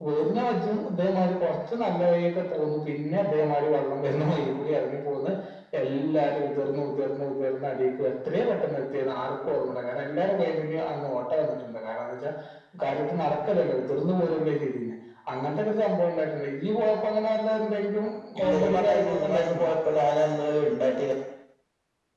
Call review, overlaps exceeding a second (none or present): present